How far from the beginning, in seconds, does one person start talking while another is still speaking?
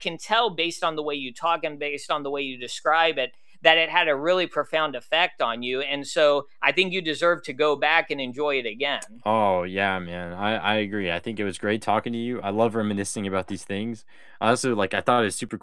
none

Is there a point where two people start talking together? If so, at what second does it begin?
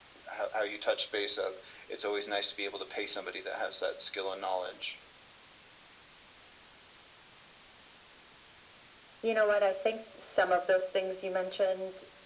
none

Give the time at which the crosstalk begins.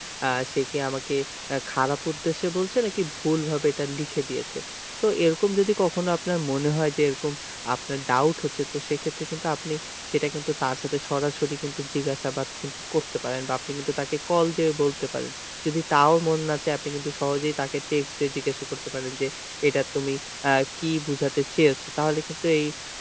none

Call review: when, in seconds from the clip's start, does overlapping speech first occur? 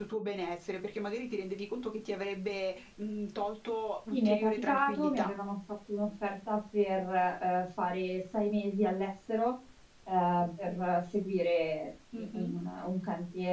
4.1 s

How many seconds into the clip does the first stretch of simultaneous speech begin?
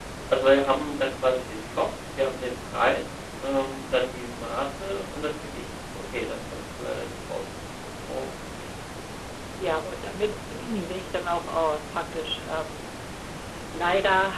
none

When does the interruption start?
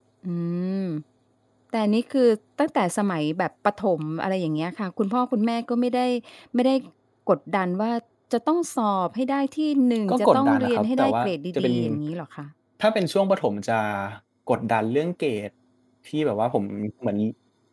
10.1 s

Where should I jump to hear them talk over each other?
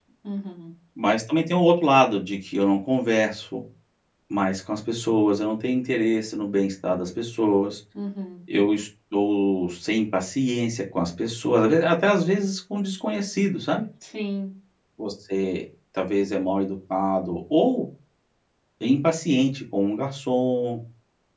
none

